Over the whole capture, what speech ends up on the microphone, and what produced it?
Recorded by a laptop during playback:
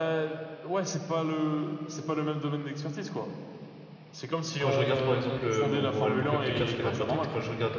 both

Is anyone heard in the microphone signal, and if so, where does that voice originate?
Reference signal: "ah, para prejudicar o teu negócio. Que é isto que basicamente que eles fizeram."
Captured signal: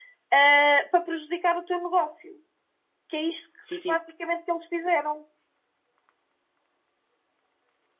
both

